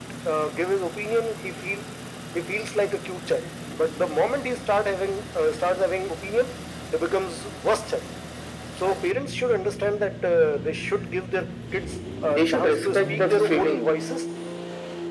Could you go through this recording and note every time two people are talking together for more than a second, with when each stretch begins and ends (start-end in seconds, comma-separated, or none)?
12.3-13.9